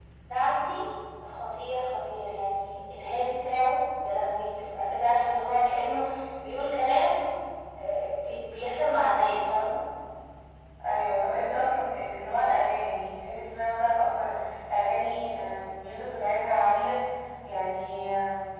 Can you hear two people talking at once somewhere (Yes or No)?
No